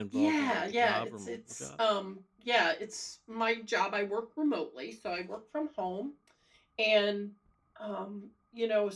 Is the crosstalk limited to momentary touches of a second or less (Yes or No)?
No